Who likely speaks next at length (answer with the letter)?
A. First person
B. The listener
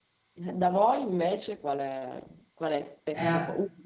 A